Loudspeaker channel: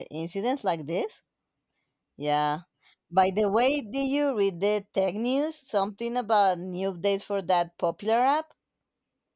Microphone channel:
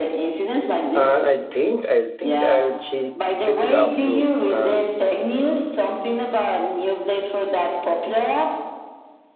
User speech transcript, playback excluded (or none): Uh, I think I think I'll check check it out too. Uh,